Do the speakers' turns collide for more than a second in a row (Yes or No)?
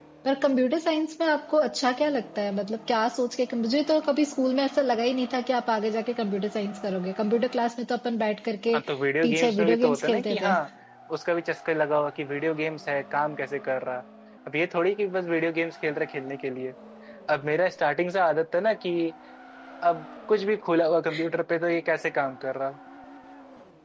Yes